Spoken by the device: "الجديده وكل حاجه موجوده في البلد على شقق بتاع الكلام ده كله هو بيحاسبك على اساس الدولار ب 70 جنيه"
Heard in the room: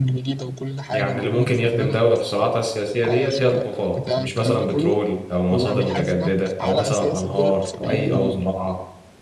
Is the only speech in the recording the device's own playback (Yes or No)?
No